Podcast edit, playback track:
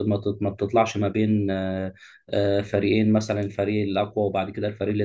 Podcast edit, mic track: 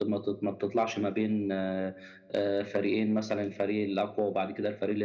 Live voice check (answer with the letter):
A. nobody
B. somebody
A